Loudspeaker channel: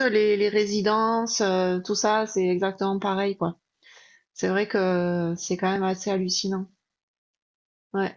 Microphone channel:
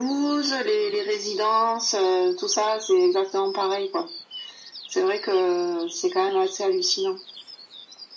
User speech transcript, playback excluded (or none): none